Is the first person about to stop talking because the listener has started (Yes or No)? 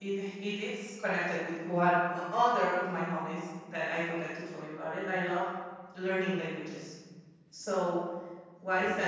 No